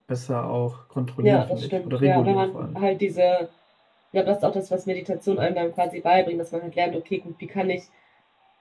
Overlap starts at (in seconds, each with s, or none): 1.2 s